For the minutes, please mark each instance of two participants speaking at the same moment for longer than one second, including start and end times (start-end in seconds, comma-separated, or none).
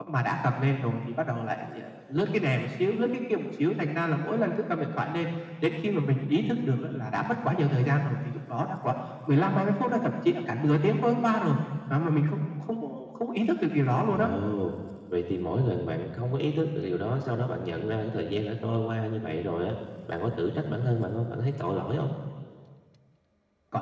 none